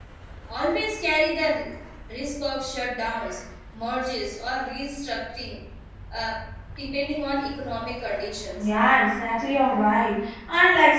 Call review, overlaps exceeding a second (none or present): none